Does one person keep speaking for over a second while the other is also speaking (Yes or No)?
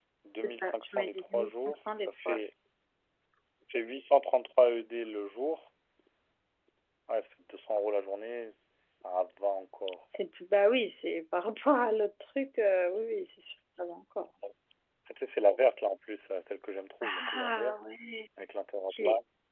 Yes